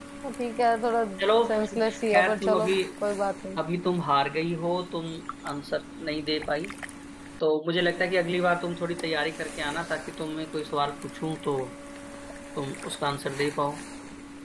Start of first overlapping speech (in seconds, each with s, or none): 1.5 s